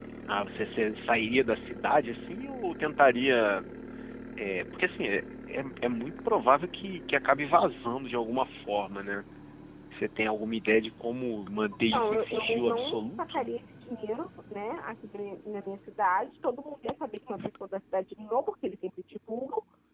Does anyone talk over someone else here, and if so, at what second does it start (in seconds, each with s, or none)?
11.9 s